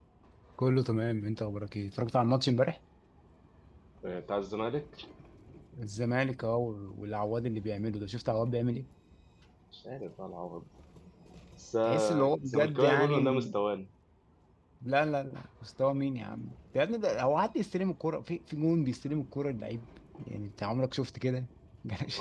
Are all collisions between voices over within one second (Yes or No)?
No